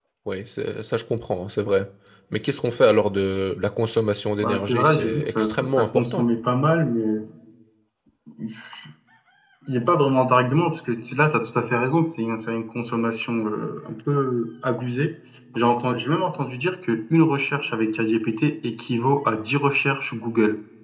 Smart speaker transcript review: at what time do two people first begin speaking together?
4.4 s

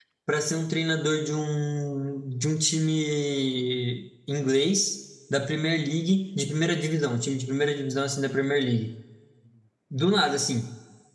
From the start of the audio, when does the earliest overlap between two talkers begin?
none

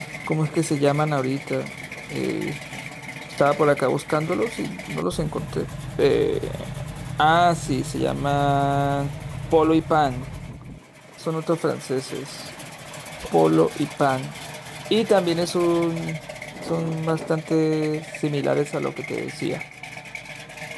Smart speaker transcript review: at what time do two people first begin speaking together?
none

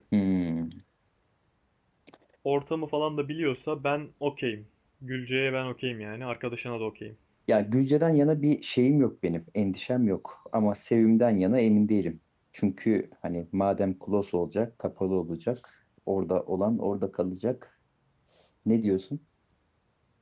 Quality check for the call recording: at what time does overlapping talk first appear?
none

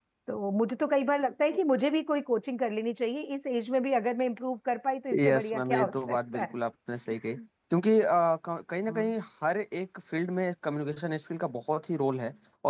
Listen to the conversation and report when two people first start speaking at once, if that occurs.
5.1 s

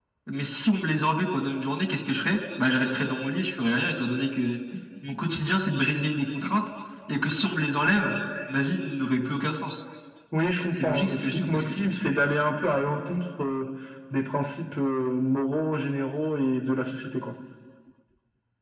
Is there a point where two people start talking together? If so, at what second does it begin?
10.8 s

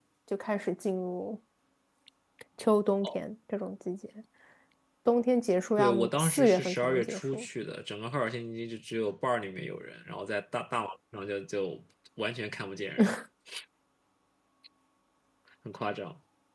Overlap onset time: 5.8 s

